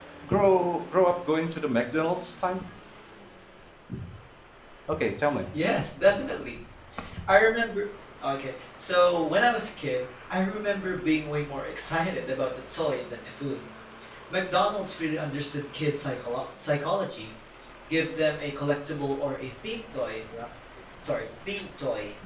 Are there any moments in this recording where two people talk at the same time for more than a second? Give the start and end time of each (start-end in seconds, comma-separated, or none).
none